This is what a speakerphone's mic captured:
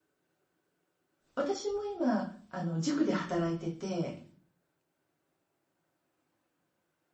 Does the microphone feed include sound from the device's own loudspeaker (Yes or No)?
No